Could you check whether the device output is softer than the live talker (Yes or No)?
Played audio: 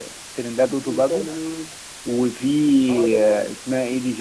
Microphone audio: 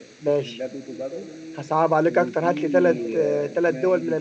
Yes